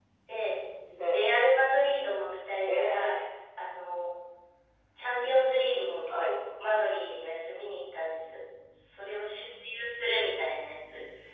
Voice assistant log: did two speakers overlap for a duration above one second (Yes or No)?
No